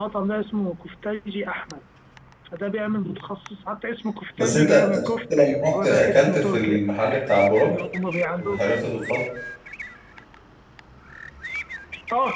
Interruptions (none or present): present